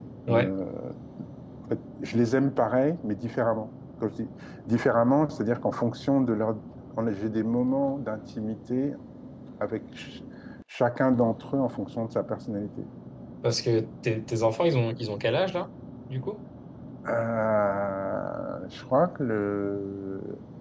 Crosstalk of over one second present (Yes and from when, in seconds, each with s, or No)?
No